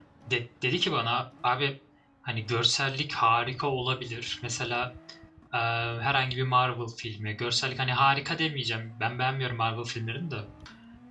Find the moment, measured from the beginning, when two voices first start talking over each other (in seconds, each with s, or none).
none